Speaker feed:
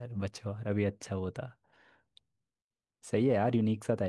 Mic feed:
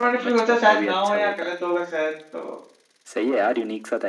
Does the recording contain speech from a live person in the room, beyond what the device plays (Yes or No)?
Yes